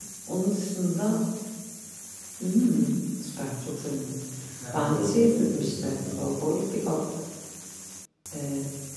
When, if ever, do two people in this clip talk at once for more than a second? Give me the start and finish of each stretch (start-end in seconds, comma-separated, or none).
4.9-6.3